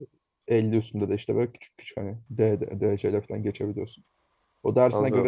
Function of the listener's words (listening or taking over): listening